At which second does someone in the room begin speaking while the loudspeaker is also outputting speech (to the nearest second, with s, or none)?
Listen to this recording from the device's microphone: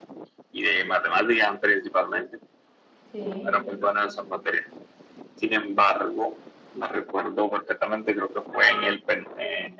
3 s